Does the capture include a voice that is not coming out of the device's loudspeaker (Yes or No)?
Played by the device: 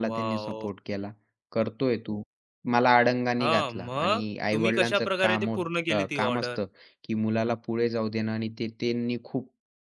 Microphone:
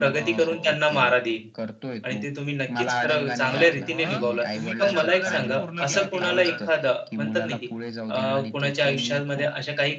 Yes